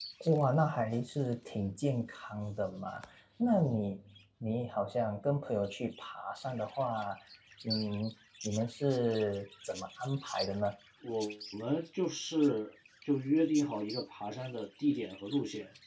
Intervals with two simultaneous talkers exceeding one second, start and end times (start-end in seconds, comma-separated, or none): none